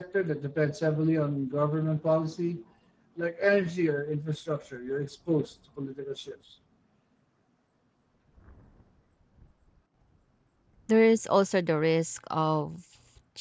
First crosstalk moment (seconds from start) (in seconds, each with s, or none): none